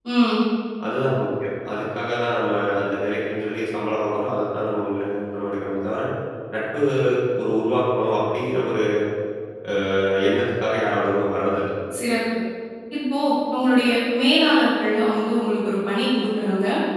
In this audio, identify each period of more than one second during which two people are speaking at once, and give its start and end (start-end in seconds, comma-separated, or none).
none